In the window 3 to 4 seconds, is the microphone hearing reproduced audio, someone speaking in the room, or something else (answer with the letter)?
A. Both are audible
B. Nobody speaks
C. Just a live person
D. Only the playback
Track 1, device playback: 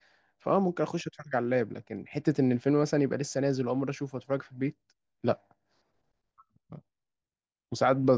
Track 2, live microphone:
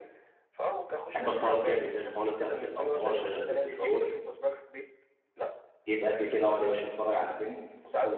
A